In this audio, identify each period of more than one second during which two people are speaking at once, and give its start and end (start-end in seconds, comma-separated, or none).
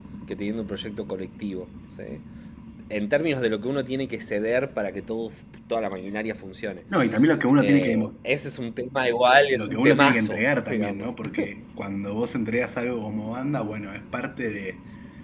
9.5-11.1